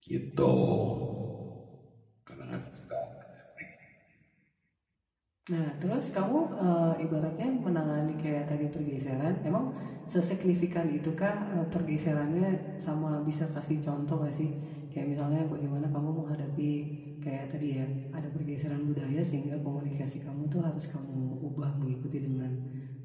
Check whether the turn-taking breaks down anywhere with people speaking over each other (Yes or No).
No